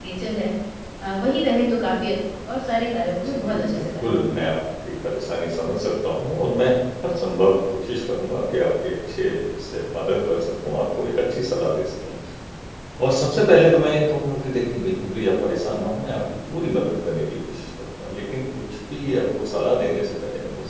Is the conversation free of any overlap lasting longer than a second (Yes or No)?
No